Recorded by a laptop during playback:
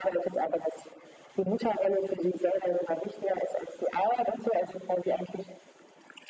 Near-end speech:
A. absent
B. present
A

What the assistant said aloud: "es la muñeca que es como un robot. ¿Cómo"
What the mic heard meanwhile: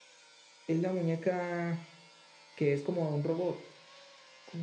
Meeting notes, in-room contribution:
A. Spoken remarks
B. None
B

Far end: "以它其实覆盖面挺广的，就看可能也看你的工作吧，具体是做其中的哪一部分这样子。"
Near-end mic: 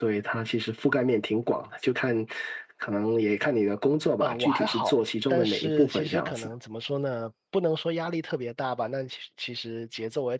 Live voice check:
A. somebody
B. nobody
A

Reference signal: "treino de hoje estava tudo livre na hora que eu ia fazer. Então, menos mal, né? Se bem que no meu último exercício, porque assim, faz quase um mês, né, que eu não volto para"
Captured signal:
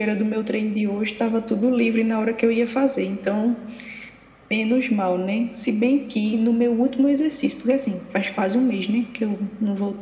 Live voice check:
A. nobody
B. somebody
A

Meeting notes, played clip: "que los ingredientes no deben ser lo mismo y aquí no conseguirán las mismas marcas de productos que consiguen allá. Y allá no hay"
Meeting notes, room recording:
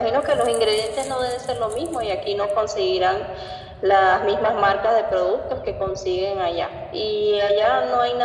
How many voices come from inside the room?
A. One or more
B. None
B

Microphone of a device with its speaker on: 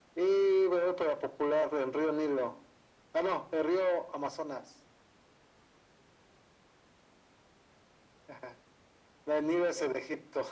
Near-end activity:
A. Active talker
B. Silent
B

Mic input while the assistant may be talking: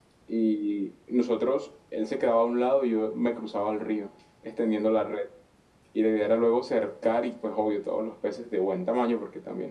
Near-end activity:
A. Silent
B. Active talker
A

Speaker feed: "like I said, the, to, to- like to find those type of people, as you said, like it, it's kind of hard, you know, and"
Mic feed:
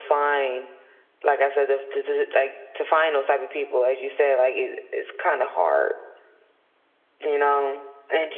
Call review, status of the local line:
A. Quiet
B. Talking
A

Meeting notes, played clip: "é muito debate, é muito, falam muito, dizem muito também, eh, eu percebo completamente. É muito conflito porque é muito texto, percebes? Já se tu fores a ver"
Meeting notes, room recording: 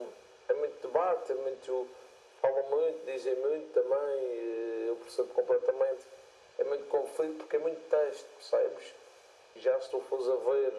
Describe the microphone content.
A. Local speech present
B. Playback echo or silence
B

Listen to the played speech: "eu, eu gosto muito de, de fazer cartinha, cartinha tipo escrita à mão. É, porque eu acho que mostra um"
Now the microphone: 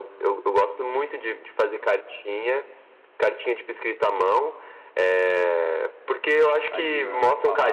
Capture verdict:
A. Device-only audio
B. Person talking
B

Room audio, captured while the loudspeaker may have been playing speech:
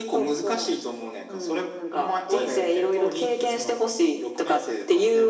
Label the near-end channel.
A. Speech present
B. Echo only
B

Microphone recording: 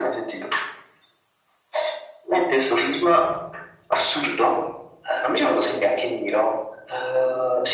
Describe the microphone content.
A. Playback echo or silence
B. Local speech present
A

